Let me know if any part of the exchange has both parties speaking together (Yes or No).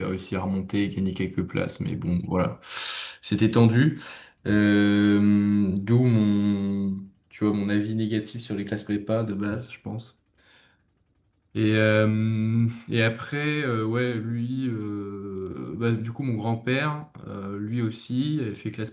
No